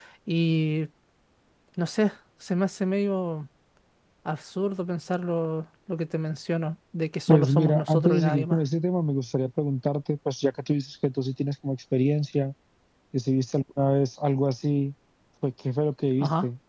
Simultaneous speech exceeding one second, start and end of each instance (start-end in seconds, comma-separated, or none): 7.3-8.6